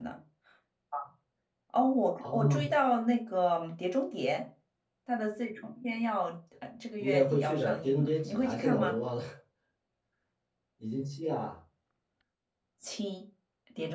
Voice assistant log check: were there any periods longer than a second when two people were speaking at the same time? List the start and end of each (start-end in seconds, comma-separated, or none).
7.0-9.0